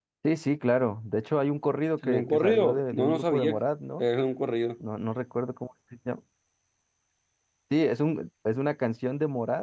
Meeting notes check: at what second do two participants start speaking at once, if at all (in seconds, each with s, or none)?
2.0 s